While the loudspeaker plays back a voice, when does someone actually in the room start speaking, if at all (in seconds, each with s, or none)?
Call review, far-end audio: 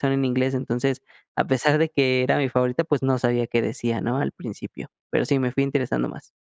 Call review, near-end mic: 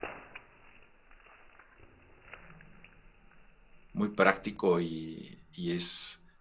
3.9 s